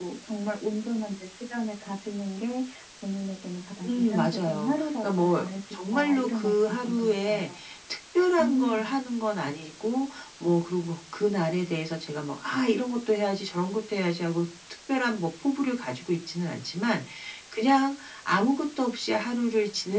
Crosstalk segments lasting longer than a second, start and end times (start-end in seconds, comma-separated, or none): 3.9-7.4